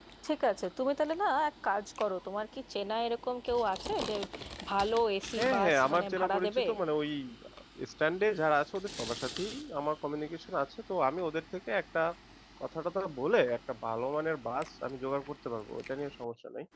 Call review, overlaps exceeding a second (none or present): present